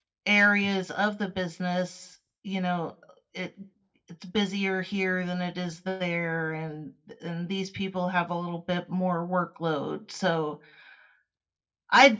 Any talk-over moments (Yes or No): No